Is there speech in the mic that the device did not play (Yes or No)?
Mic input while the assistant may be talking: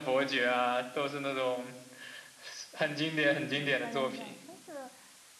Yes